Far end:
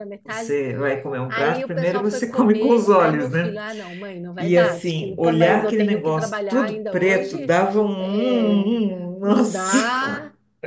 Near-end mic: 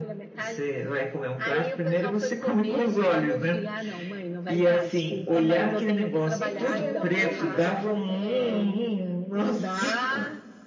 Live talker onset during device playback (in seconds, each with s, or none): 6.4 s